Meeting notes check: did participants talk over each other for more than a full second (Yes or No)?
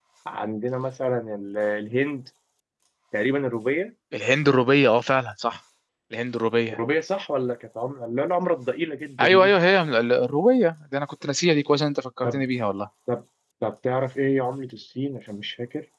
No